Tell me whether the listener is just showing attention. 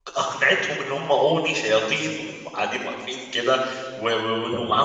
Yes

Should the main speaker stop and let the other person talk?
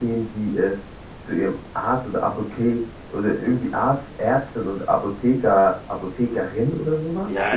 Yes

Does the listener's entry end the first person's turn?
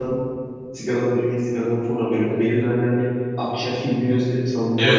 Yes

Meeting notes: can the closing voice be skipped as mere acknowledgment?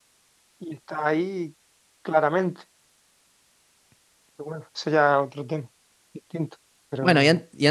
No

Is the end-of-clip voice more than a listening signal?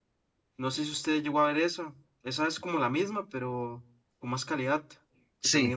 Yes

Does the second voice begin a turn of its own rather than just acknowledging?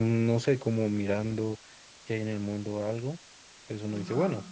No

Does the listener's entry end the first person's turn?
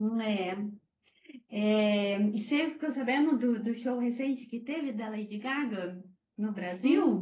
Yes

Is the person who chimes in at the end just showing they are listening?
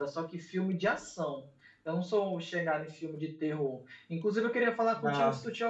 Yes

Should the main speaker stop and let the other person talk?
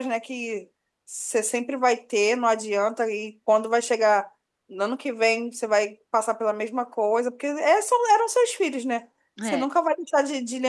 No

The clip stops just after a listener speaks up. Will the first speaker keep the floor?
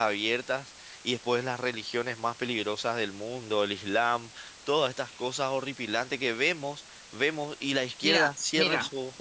No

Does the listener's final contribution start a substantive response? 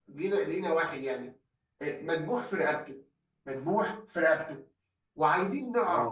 No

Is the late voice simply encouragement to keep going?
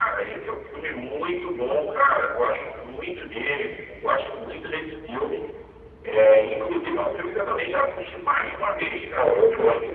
No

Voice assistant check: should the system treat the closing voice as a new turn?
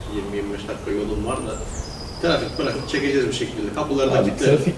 Yes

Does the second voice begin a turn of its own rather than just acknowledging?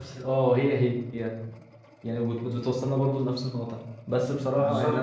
No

